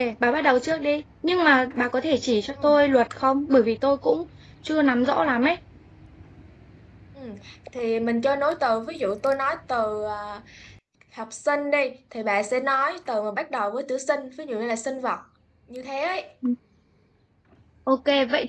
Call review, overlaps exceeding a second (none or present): none